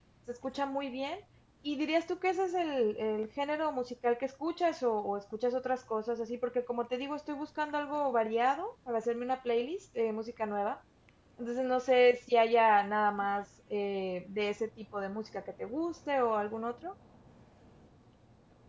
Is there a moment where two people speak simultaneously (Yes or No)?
No